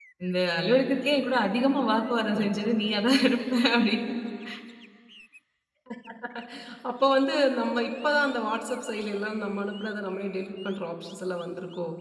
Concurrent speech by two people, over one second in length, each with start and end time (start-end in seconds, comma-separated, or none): none